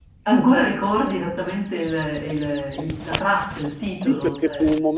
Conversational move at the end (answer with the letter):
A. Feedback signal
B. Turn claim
B